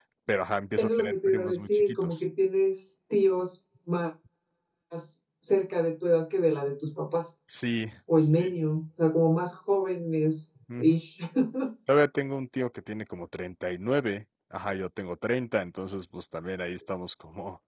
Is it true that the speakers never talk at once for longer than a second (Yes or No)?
No